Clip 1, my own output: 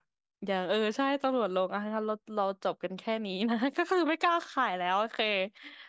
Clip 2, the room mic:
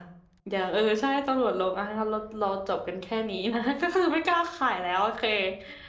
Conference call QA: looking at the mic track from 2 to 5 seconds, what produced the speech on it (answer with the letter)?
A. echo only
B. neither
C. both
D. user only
A